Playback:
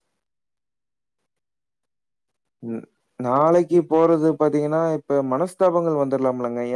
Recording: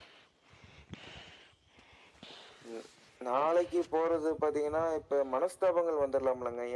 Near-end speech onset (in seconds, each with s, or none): none